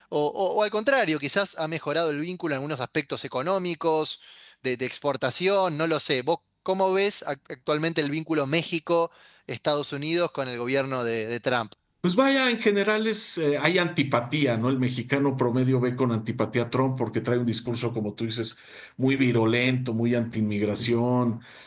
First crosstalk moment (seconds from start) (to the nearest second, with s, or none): none